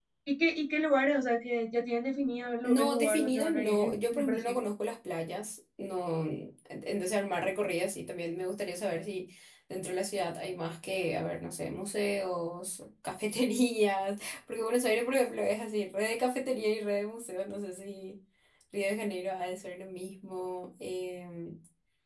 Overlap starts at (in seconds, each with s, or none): 2.6 s